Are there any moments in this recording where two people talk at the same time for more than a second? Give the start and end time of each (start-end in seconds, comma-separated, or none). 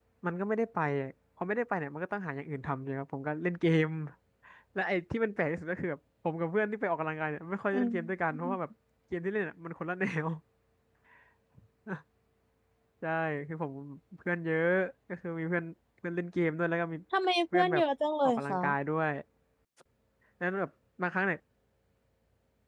none